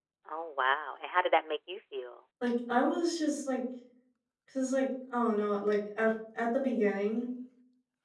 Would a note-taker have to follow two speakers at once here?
No

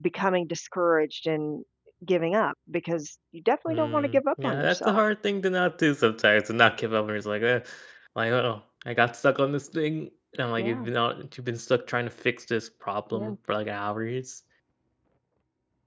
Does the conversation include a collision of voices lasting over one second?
Yes, from 3.7 s

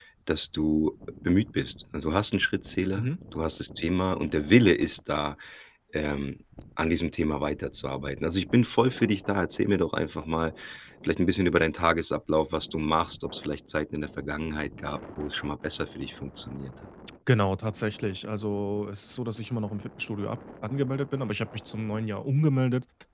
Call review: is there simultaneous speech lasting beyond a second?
No

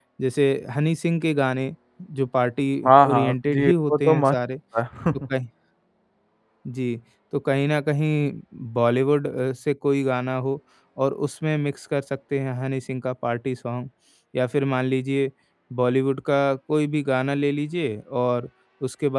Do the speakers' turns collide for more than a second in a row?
Yes, from 3.1 s

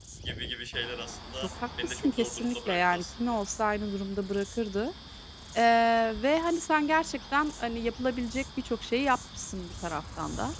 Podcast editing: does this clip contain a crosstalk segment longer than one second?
Yes, from 1.4 s

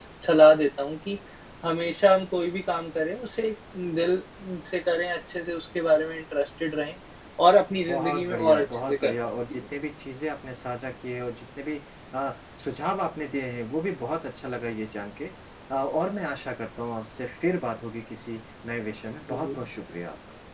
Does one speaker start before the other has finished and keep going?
Yes, from 7.9 s

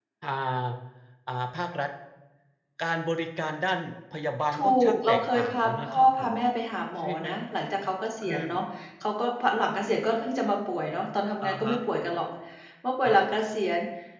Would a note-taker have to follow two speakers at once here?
Yes, from 4.5 s

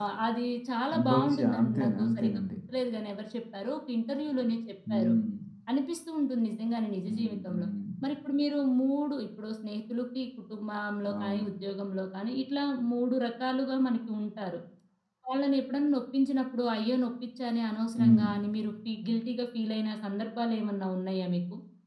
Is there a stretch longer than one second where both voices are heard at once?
Yes, from 1.1 s

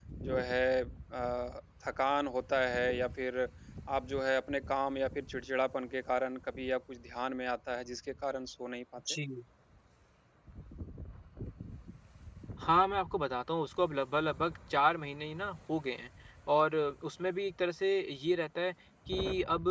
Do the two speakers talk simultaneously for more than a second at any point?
No

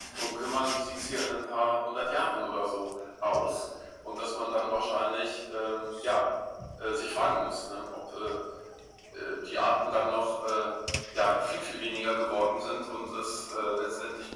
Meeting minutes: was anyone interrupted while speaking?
No

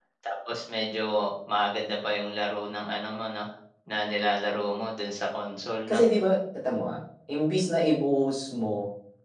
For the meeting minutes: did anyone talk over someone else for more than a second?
No

